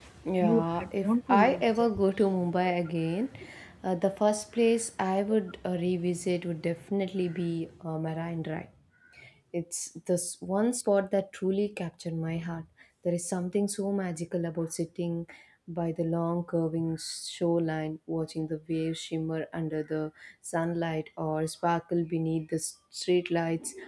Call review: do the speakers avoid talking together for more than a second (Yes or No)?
No